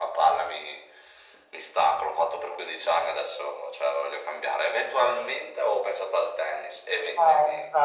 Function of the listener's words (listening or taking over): taking over